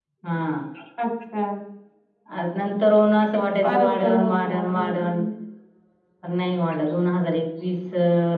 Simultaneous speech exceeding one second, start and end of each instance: 3.6-5.1

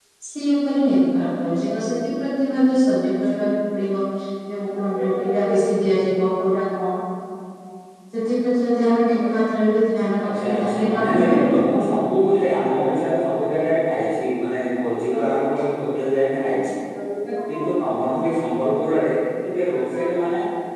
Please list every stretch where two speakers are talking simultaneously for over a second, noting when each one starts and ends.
10.2-11.6

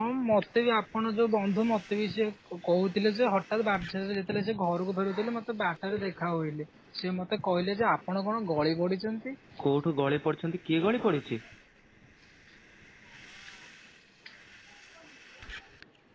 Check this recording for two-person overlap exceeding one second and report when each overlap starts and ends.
none

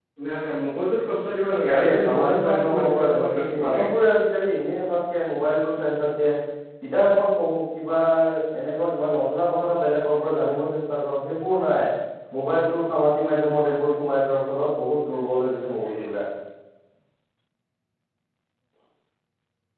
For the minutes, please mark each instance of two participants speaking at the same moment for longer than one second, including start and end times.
1.7-3.9

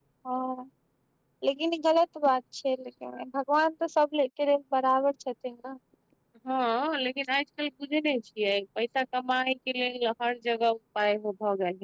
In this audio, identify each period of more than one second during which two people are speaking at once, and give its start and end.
none

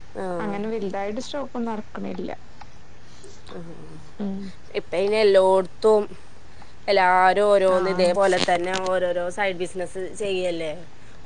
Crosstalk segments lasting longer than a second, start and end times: none

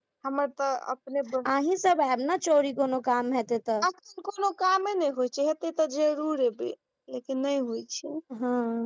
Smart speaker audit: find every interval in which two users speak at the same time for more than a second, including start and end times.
none

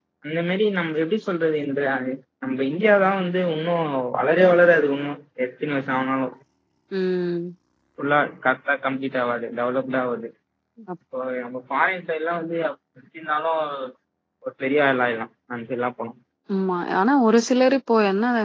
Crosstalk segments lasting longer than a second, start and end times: none

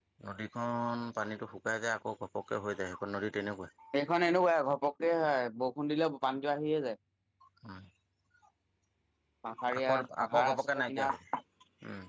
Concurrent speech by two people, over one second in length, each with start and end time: 9.8-11.1

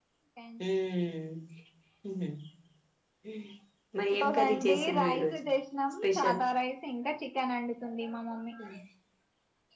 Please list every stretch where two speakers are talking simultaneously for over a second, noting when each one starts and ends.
4.1-5.4

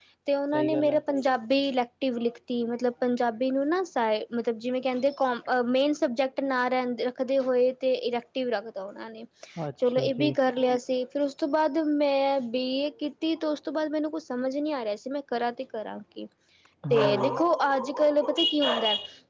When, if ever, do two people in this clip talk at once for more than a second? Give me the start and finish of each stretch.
none

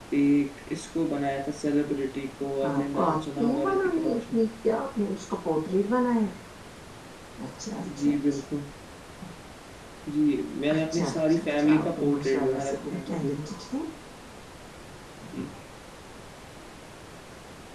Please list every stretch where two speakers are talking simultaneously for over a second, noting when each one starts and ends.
2.7-4.3, 10.8-13.0

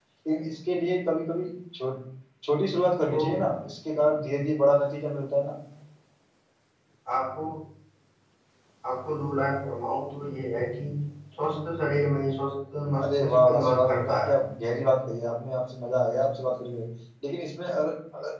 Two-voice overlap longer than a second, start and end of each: 13.0-14.3

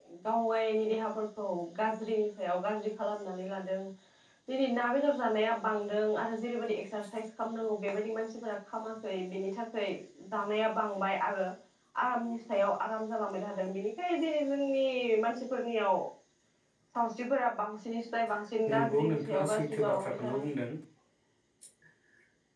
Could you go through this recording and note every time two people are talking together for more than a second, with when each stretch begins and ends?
18.7-20.4

